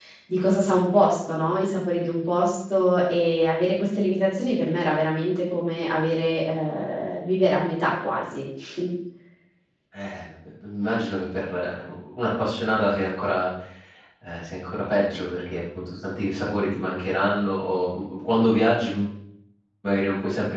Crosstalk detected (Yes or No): No